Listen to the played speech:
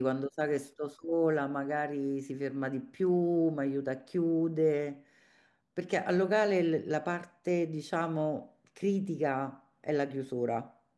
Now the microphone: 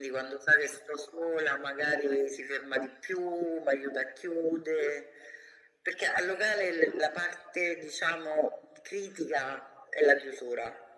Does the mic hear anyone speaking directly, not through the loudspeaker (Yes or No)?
No